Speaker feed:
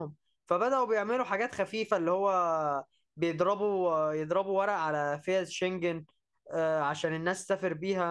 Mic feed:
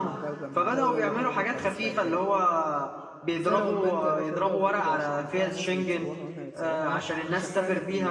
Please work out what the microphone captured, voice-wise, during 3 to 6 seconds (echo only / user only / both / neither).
both